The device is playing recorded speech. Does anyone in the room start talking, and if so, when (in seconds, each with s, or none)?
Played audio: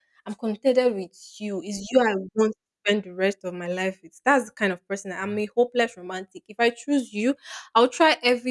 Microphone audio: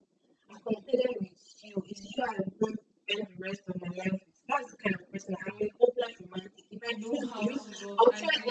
6.9 s